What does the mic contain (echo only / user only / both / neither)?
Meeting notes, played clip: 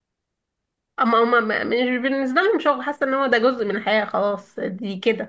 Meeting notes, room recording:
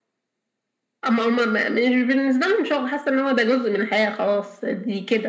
echo only